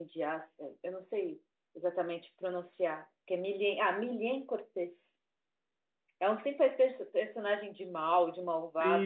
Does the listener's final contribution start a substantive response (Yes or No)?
Yes